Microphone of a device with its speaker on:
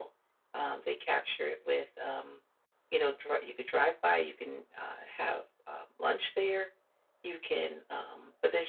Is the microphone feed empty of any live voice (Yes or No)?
Yes